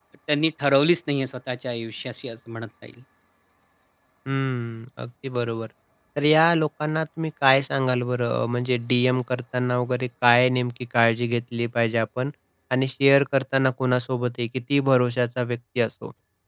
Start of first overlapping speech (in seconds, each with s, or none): none